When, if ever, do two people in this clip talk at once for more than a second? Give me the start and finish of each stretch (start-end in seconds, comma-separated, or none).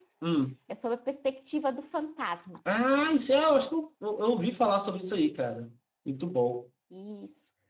none